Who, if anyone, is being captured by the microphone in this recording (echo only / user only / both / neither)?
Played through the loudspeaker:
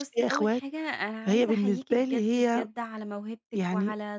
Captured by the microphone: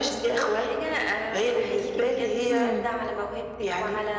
both